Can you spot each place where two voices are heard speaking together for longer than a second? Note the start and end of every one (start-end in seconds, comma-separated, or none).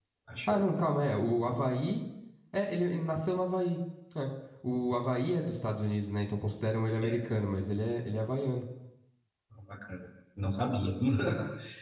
none